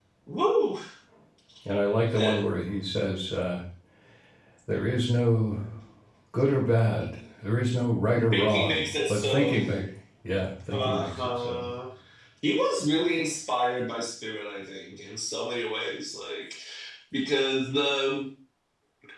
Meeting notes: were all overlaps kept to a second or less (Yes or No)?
No